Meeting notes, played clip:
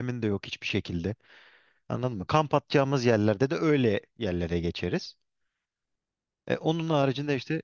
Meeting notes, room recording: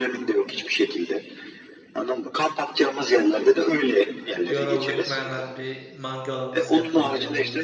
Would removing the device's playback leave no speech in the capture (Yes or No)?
No